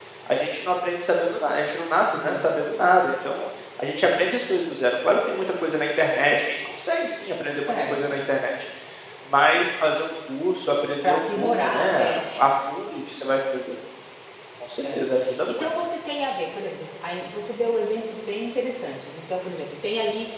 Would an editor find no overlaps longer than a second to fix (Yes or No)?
No